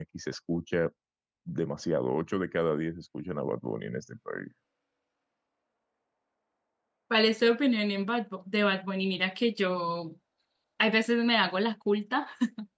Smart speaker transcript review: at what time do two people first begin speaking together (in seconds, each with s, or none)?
none